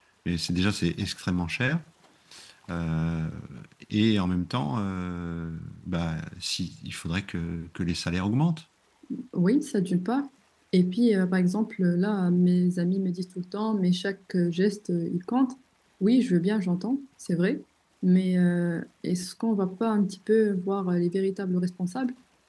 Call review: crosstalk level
none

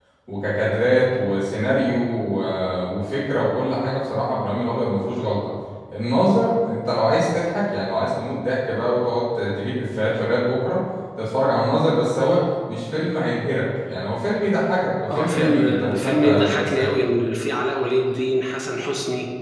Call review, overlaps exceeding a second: present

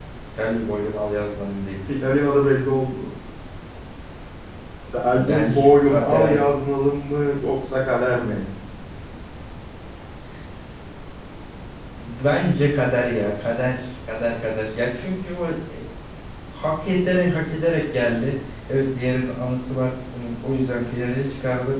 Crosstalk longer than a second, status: present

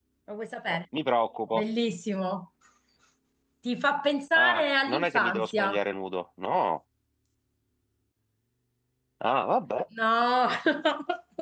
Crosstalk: present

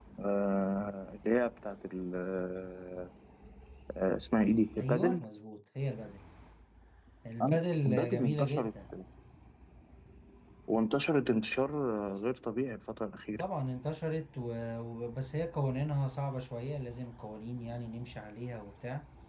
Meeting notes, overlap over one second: present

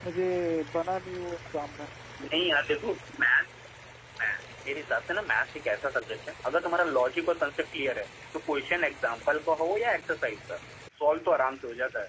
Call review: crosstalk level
none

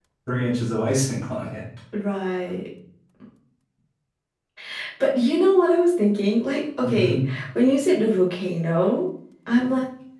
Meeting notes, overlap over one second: none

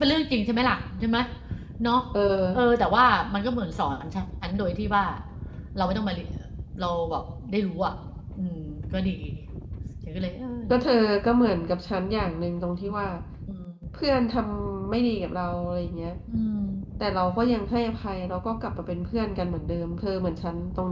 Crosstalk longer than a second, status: none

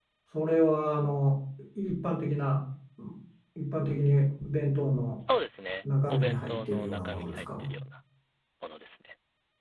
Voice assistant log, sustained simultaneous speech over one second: present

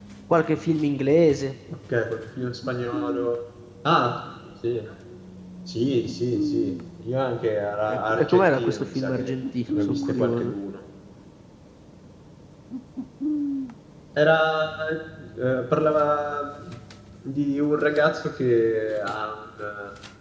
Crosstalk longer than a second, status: present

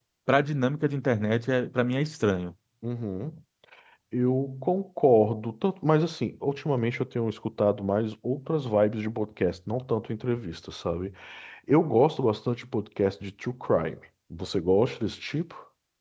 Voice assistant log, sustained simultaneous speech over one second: none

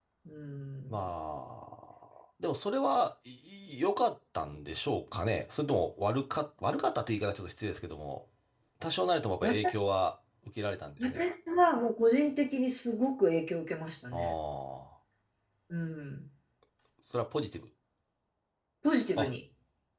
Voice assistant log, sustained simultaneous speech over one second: none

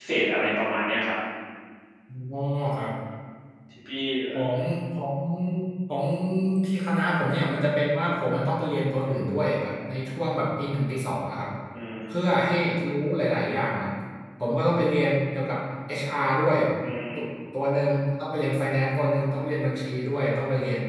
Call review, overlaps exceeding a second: none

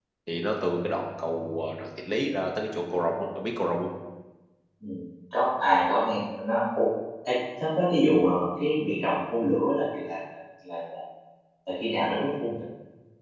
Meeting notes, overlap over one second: none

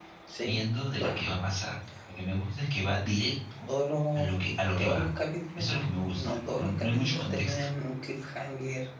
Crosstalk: present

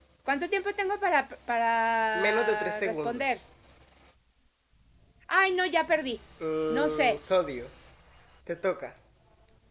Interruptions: present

